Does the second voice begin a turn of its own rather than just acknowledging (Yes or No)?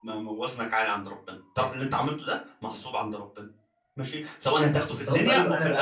Yes